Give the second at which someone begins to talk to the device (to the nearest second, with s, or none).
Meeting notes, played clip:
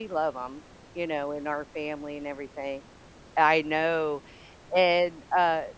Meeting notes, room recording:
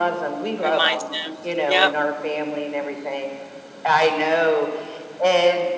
1 s